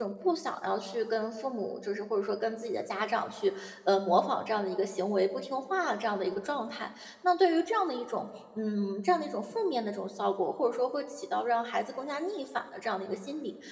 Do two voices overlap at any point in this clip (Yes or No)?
No